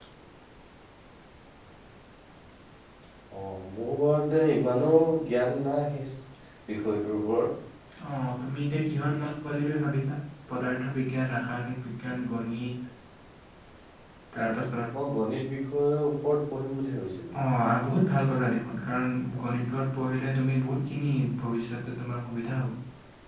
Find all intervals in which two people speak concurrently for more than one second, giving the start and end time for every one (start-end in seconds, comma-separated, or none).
none